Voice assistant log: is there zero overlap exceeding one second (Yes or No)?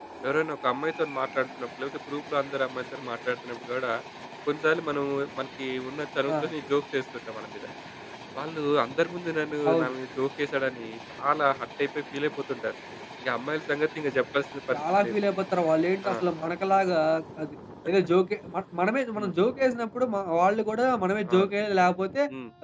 Yes